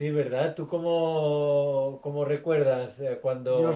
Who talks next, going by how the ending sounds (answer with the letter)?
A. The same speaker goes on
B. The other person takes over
B